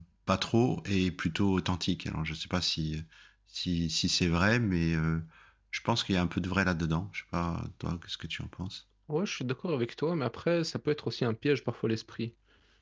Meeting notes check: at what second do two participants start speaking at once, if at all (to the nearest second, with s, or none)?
none